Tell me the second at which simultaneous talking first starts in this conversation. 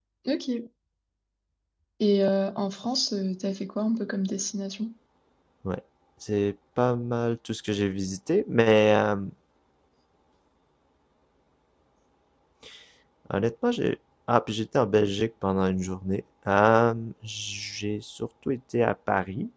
none

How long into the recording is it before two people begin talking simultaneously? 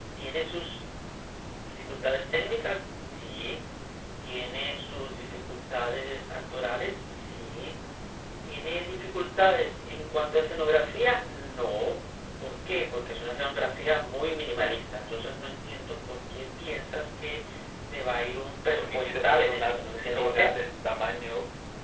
19 s

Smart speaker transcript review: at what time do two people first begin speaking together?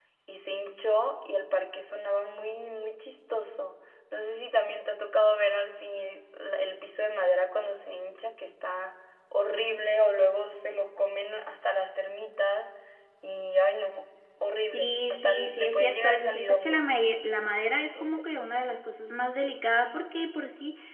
15 s

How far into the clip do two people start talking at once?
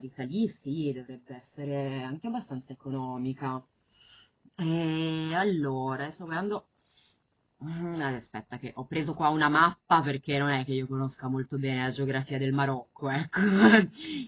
none

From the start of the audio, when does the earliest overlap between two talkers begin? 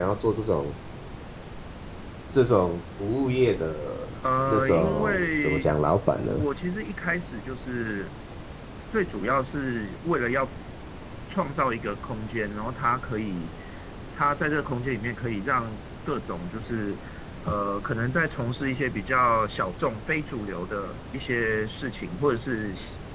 4 s

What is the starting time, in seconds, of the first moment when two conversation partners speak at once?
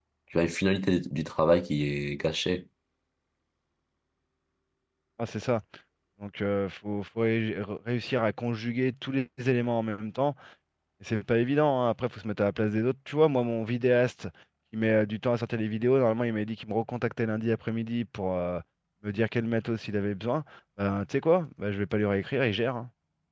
none

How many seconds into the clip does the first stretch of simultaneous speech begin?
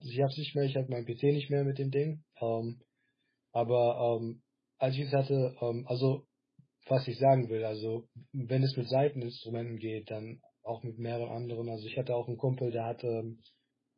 none

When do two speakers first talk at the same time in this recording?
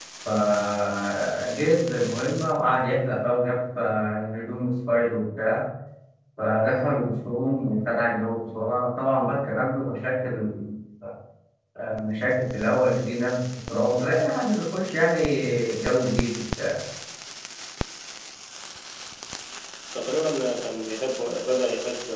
none

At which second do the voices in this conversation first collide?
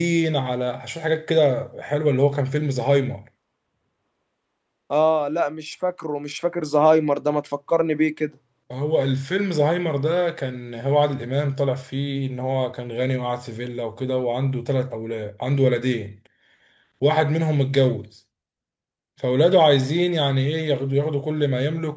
none

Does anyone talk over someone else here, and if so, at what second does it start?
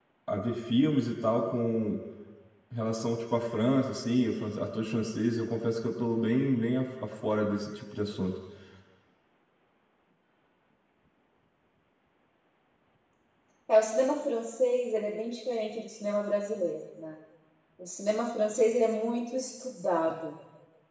none

